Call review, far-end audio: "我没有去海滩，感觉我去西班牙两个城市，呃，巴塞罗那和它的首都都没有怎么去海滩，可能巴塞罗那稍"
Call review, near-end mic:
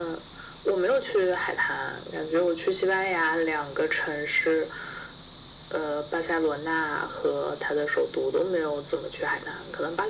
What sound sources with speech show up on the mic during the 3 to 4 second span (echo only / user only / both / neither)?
echo only